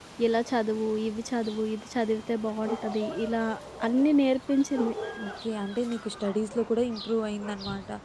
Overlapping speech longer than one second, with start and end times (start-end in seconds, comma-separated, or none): none